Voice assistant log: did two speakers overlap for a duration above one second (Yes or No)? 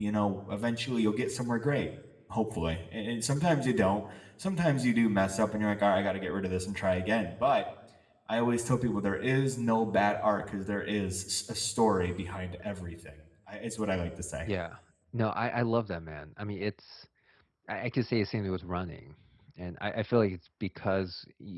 No